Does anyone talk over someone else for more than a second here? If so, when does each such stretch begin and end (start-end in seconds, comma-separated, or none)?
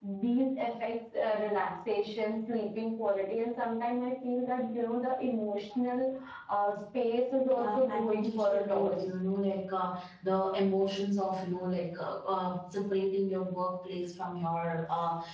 7.5-8.9